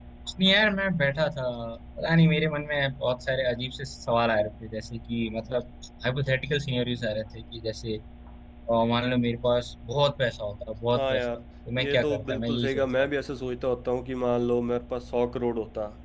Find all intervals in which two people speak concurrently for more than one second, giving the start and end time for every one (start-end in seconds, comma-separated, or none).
11.8-13.1